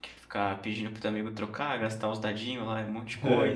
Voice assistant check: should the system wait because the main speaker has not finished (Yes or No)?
Yes